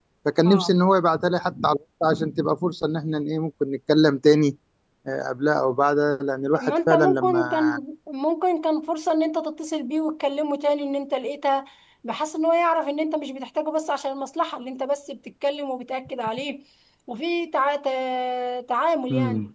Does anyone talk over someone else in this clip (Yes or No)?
Yes